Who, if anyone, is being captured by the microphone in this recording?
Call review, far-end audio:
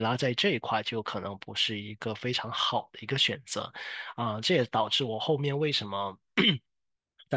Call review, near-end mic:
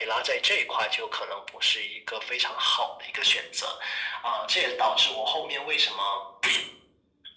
echo only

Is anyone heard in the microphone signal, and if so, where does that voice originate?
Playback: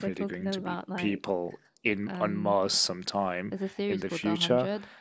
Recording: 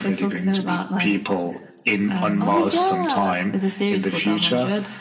both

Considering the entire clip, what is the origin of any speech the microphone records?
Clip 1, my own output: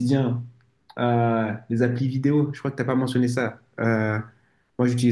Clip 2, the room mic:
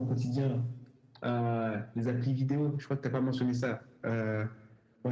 echo only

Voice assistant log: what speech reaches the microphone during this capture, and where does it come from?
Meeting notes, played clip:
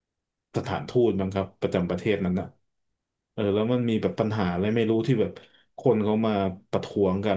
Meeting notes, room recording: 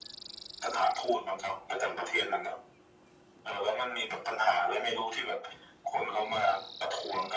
echo only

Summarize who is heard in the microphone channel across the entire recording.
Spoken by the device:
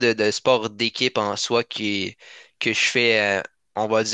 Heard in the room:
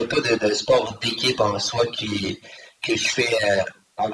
echo only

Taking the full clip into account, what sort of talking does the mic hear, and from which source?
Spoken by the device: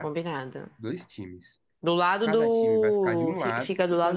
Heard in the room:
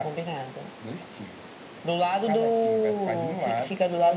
echo only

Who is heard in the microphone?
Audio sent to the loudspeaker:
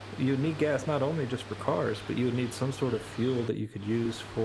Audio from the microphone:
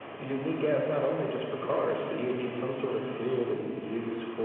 both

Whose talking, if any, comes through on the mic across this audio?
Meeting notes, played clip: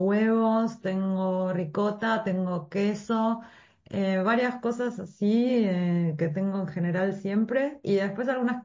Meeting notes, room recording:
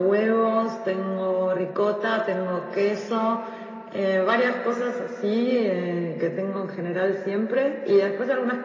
echo only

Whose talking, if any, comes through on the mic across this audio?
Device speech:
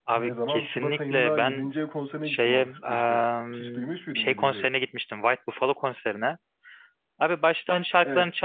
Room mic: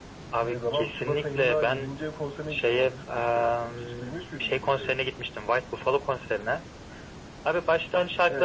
echo only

